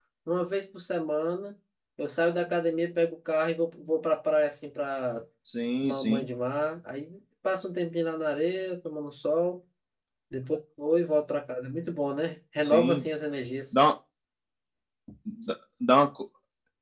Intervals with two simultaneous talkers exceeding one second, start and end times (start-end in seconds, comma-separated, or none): none